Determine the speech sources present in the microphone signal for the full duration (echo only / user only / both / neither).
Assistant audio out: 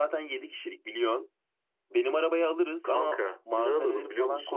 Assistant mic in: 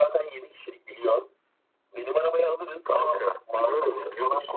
echo only